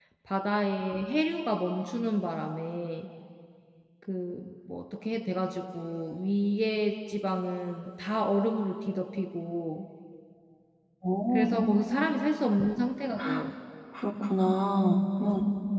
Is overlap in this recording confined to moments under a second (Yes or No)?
Yes